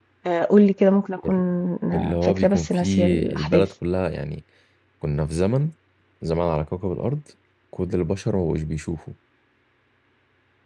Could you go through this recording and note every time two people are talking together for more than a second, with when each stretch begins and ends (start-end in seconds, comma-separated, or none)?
2.2-3.6